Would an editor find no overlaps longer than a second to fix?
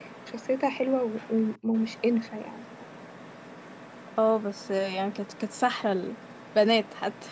Yes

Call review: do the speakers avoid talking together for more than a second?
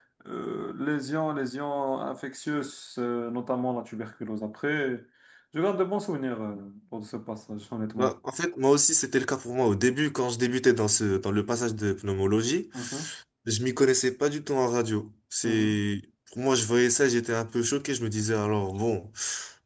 Yes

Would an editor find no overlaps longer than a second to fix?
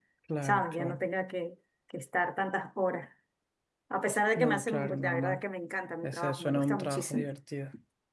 No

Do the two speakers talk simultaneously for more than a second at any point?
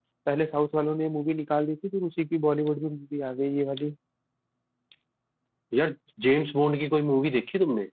No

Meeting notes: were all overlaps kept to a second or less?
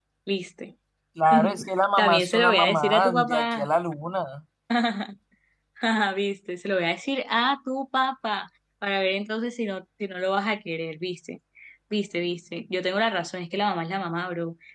No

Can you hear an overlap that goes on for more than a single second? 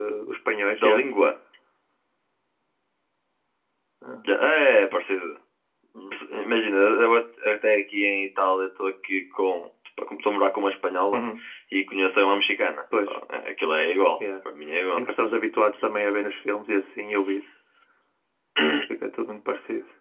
No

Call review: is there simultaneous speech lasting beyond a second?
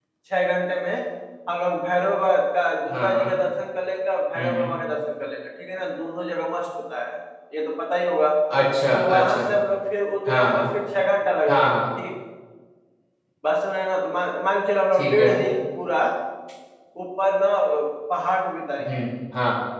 No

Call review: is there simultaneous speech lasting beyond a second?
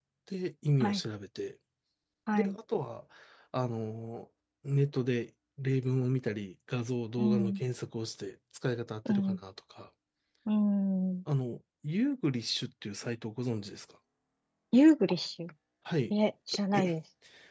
No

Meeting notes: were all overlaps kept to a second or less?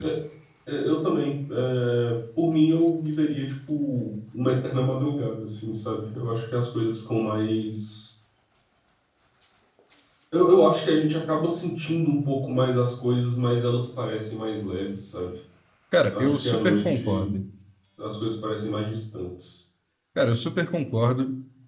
No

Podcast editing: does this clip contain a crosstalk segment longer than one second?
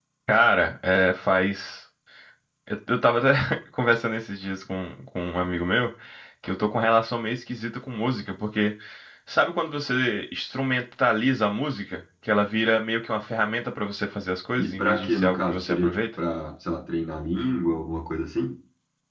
Yes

